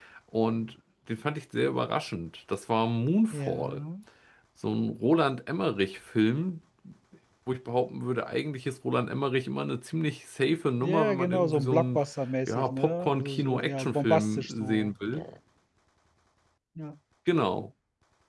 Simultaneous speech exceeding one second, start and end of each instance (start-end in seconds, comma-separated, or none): 10.8-12.0, 12.5-14.9